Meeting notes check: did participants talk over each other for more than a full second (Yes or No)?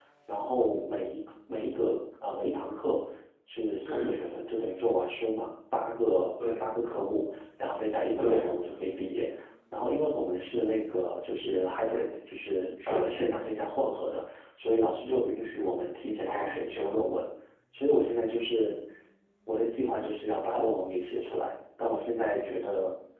No